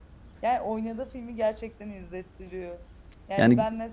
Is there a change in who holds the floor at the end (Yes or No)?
No